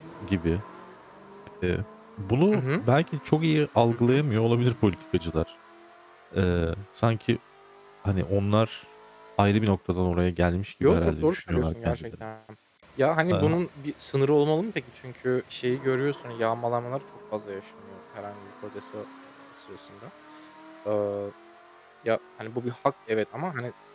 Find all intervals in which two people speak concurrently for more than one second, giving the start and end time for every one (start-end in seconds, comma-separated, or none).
10.8-12.2